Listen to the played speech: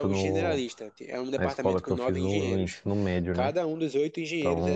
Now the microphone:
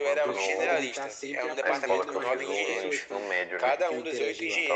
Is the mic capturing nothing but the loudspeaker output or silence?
No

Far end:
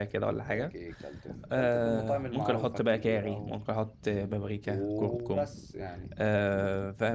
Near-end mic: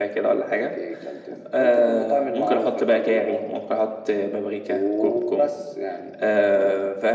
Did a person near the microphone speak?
No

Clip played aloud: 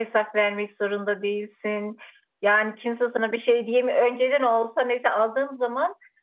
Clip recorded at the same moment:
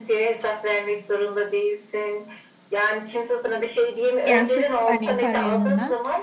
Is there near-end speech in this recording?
Yes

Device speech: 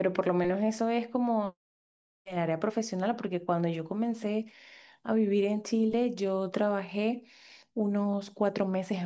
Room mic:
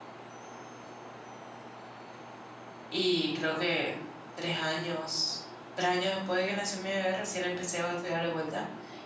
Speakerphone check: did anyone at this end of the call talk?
Yes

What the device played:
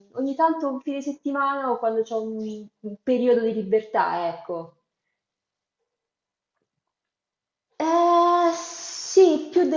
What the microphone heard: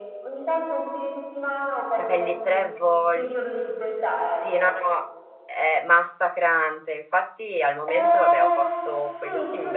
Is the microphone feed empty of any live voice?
No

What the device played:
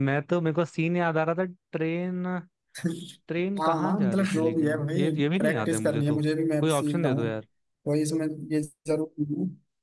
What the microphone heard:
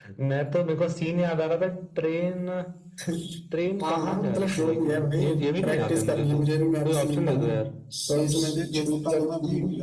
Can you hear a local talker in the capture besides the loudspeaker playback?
Yes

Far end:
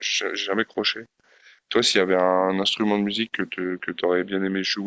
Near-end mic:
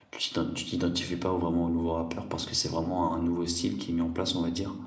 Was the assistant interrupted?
Yes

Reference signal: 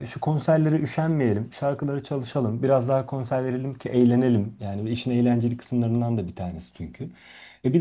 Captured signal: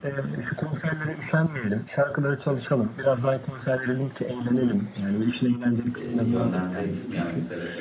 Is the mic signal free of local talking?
No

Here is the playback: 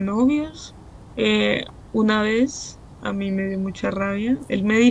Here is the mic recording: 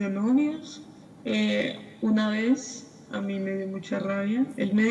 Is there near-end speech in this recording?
No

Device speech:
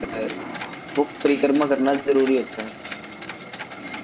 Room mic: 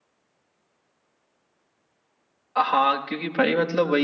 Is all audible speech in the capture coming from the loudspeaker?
No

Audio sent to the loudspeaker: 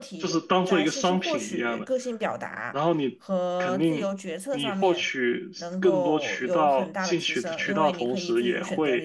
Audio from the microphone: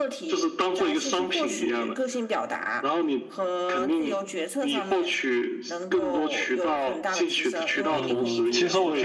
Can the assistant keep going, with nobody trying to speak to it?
No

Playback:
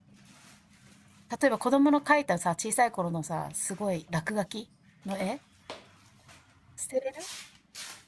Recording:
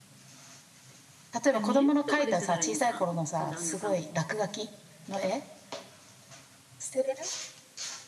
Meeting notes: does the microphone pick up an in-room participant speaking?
Yes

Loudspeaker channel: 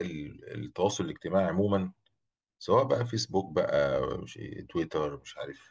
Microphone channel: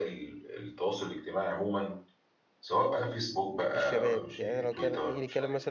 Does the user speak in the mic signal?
Yes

